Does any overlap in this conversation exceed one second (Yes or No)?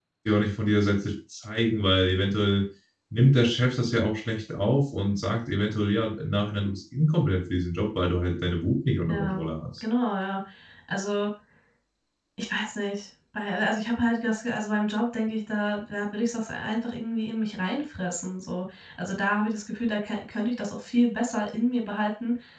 No